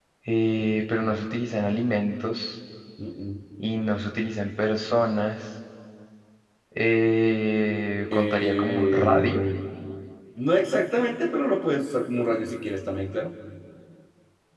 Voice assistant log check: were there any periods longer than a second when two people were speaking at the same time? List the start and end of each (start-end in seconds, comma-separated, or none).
8.1-9.4